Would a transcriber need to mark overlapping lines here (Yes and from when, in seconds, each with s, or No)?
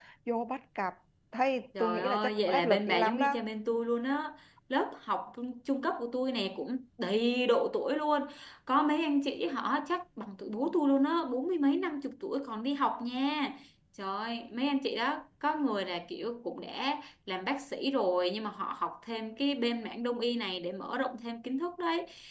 Yes, from 1.8 s